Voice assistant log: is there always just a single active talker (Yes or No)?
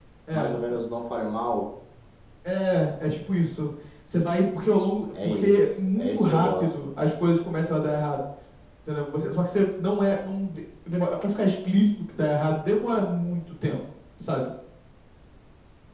No